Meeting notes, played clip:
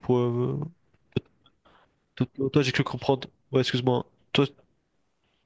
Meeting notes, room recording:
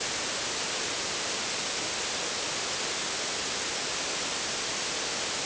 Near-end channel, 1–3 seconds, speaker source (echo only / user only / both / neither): neither